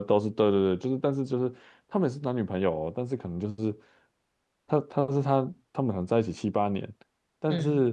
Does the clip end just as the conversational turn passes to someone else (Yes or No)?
No